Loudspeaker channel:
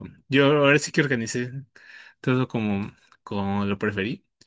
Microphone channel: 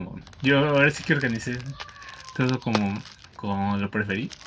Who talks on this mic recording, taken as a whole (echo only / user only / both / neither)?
echo only